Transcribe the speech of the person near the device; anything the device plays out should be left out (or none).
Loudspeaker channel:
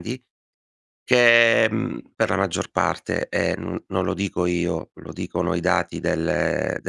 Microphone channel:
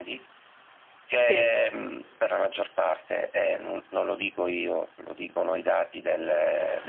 Sì.